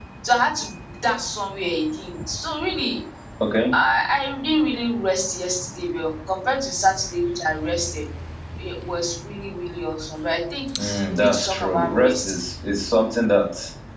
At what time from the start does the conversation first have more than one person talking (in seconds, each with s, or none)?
10.8 s